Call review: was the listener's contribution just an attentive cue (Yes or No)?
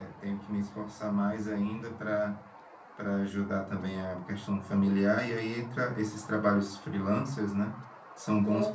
Yes